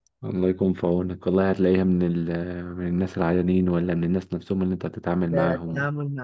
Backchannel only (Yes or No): No